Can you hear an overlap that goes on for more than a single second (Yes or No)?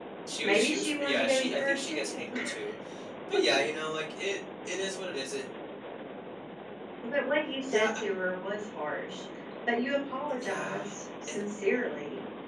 Yes